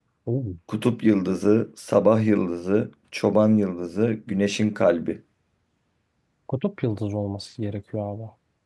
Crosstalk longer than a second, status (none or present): none